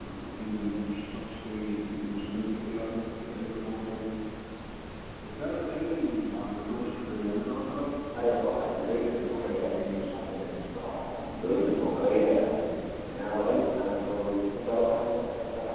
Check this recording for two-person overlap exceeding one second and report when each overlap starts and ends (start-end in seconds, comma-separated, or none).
8.2-10.1